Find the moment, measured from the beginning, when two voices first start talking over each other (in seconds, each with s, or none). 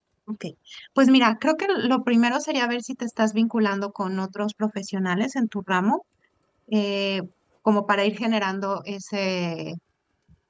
none